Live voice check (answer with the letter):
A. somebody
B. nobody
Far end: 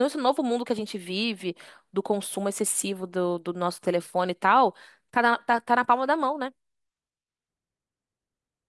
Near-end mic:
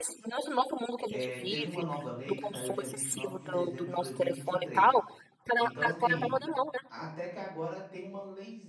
A